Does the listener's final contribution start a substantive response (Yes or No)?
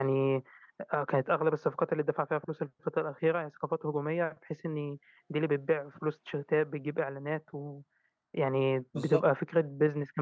No